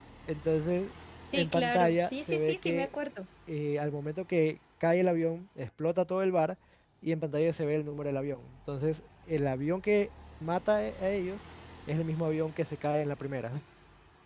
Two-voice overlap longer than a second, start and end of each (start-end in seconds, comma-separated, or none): 1.3-2.9